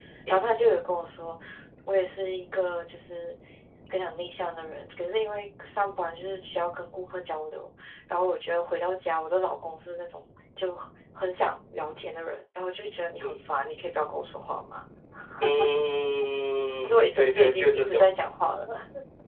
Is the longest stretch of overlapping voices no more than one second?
No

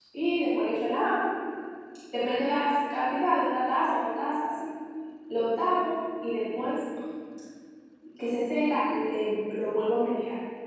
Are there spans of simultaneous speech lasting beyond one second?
No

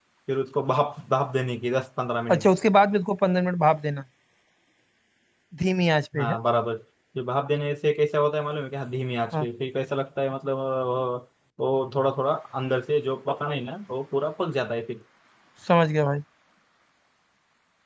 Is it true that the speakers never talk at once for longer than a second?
Yes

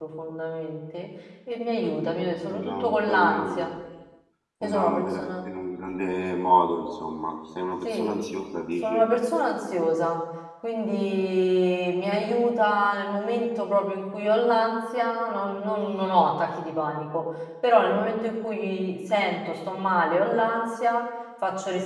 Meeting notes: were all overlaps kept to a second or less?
No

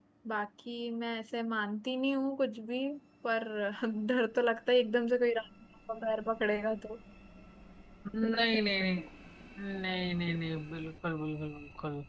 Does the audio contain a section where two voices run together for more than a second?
No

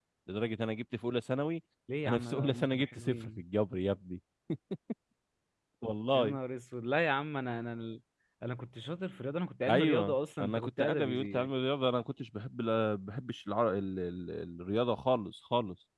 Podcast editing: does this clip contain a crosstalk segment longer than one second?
Yes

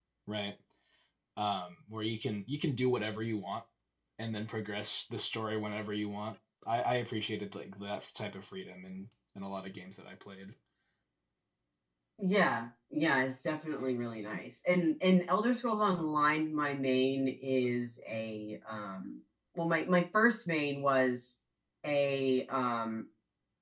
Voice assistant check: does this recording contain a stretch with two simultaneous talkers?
No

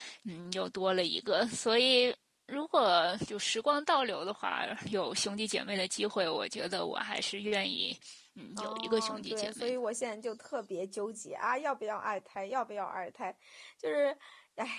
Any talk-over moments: Yes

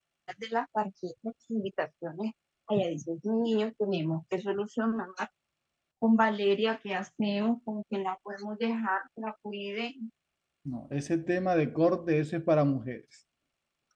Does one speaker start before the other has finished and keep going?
No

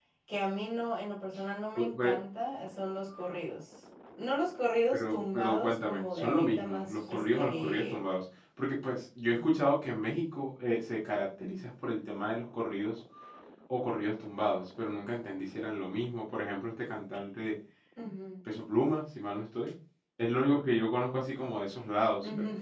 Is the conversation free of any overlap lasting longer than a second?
No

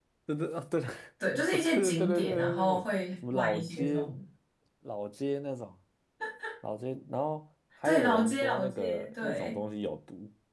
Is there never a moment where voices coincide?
No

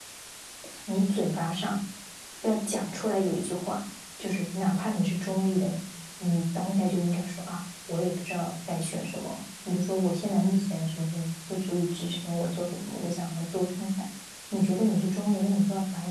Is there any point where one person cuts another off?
No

